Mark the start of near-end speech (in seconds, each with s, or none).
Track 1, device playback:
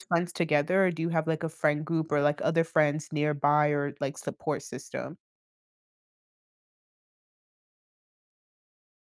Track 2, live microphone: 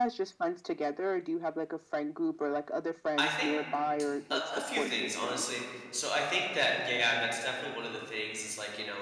3.2 s